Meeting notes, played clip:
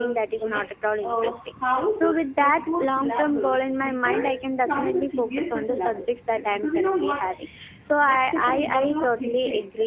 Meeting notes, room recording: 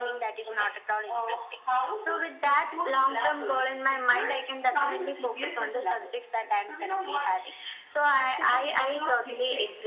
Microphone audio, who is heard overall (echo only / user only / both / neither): echo only